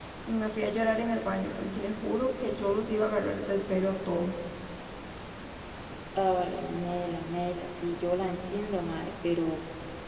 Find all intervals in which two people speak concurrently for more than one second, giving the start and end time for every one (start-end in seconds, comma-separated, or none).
none